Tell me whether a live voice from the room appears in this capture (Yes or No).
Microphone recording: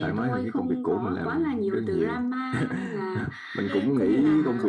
Yes